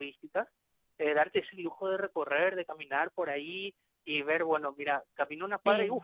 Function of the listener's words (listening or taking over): listening